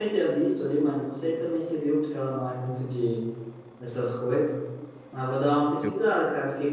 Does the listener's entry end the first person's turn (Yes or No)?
No